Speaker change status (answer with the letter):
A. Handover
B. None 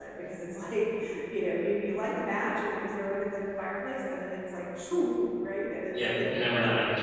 A